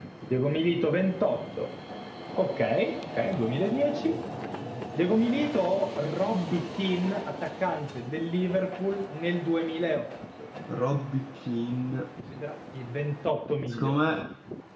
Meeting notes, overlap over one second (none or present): none